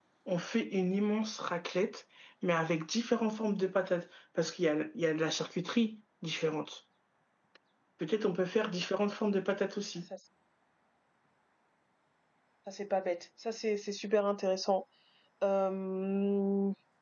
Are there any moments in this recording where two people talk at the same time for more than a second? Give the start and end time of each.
none

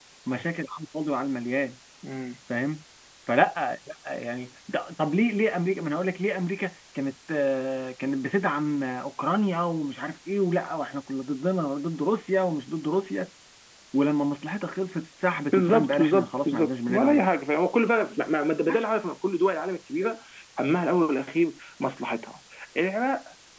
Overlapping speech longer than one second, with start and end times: 15.5-17.2

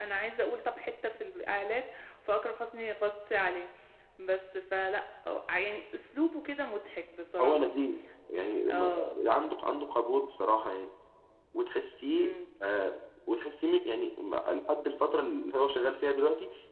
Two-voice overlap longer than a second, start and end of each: none

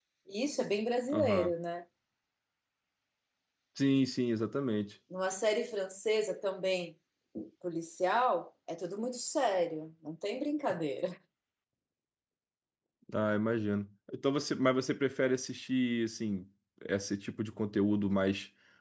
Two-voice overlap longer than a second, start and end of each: none

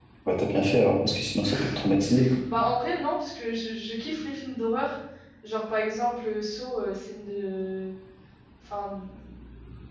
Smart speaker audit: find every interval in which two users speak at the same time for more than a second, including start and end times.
none

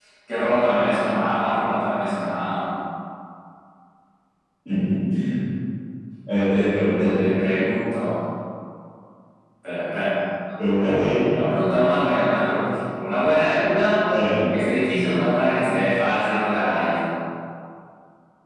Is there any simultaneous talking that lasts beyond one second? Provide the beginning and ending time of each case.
none

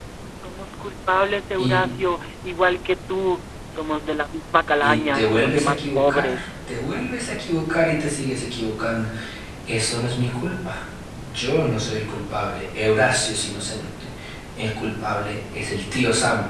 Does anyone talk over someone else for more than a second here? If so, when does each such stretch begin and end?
4.8-6.5

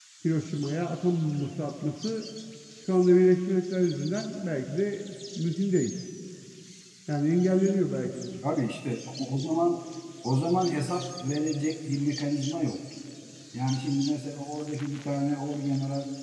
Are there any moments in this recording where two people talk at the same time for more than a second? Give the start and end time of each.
none

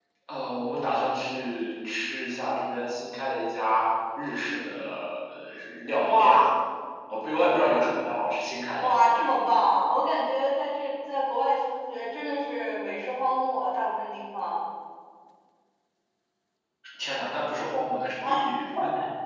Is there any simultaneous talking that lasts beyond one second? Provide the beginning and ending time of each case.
none

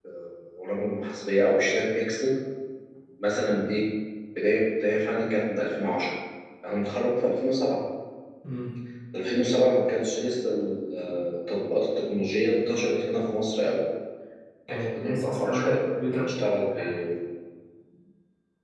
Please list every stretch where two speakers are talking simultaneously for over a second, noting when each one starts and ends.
14.7-16.3

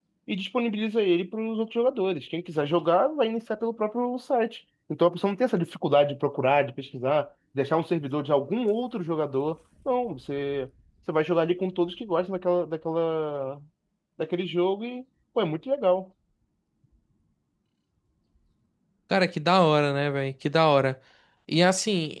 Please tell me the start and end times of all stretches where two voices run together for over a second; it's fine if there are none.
none

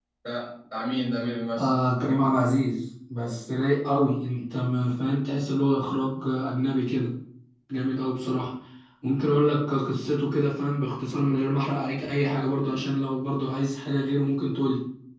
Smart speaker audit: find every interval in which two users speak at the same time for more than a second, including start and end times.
none

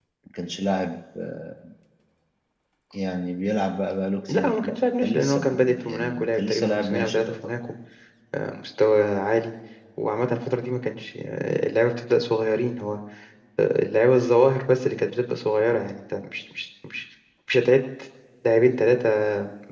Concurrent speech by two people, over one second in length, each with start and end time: 4.3-7.4

